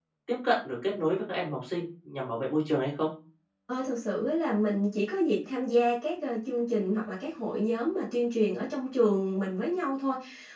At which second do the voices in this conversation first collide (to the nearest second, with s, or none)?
none